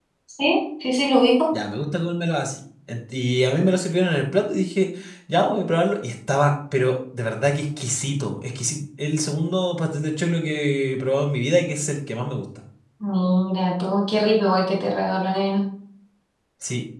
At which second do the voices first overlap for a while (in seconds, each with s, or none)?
none